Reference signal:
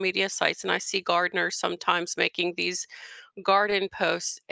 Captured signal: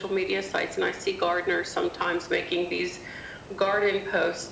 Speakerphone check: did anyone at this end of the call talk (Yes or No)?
No